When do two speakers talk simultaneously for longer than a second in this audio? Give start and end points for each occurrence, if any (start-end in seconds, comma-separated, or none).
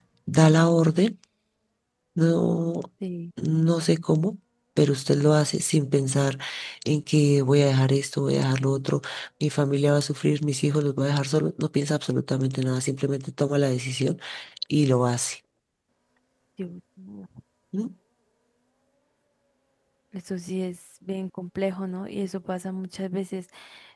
none